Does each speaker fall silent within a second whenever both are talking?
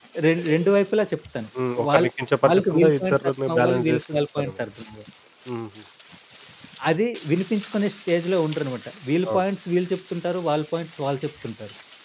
No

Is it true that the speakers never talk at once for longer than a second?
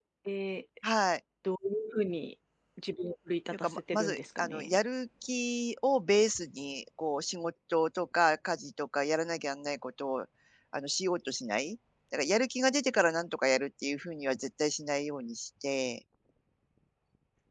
No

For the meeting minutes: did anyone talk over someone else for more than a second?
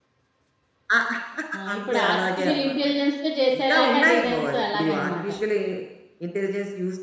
Yes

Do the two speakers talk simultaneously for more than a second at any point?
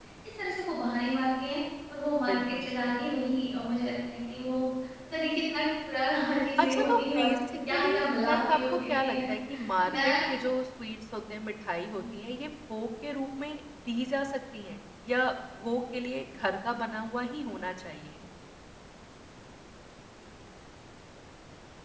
Yes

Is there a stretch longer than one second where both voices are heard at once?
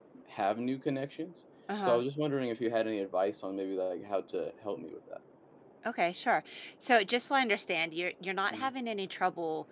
No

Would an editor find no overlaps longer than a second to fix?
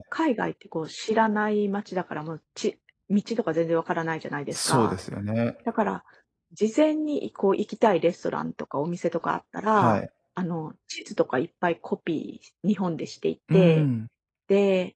Yes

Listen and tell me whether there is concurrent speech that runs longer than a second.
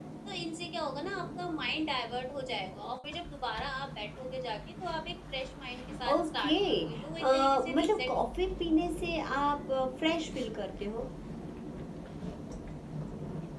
Yes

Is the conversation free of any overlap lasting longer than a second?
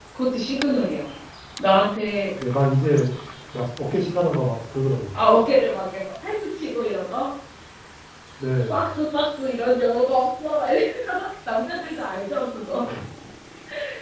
Yes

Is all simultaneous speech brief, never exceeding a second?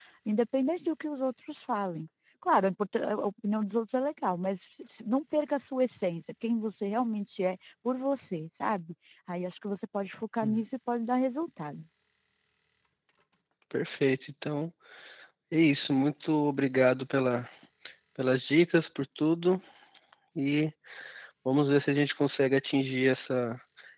Yes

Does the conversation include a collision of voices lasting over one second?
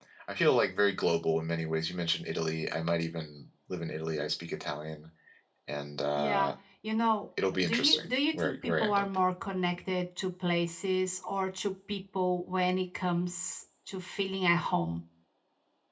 Yes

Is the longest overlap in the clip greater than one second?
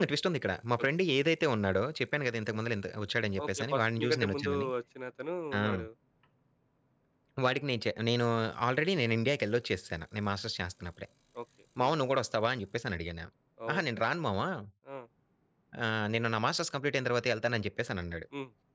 Yes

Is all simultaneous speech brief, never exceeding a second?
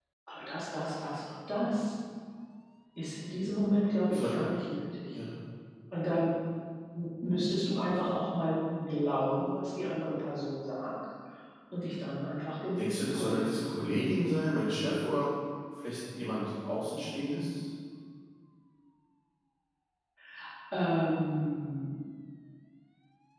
No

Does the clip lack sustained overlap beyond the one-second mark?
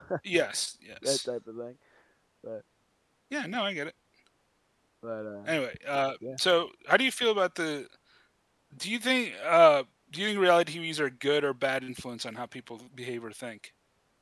Yes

